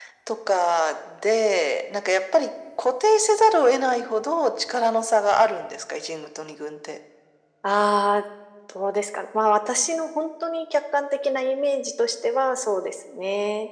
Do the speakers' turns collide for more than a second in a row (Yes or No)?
No